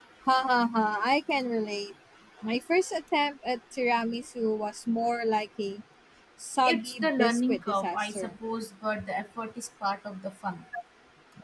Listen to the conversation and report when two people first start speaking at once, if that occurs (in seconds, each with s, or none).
6.6 s